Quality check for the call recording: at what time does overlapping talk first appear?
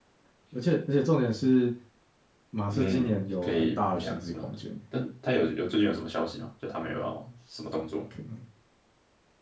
2.7 s

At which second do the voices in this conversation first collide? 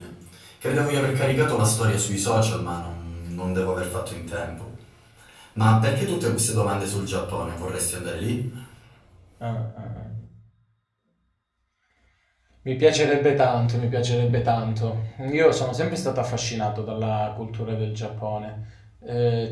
none

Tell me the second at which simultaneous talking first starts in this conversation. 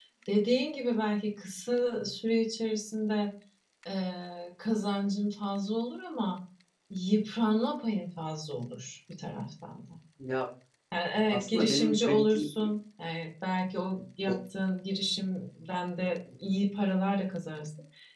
11.3 s

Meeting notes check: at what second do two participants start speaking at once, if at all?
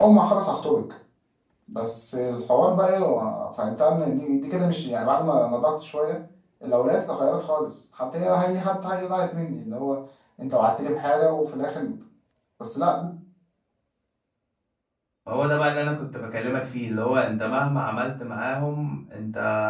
none

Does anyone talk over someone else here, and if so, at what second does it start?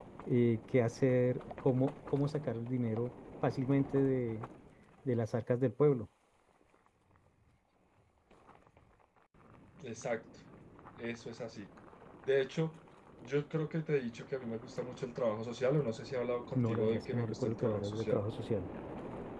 16.6 s

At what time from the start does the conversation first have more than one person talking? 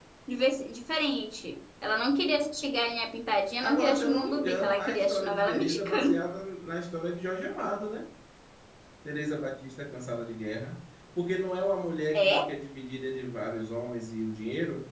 3.6 s

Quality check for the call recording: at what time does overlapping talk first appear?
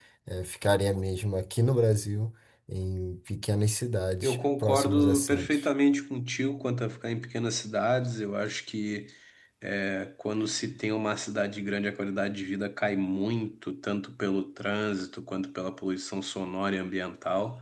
4.2 s

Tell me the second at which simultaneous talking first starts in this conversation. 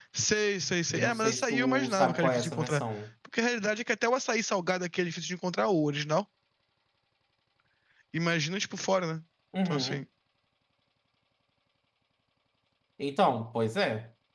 0.9 s

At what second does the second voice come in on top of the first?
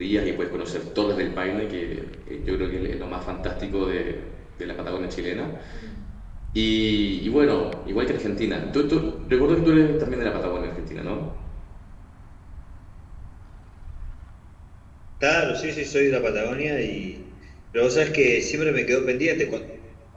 none

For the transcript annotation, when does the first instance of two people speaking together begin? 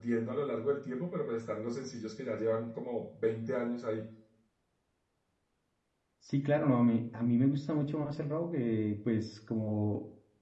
none

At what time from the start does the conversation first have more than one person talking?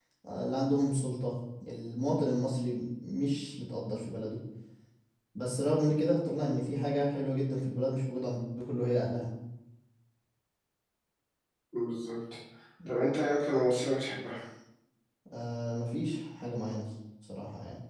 none

